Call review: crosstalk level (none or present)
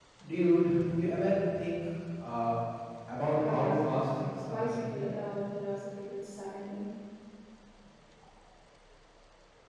present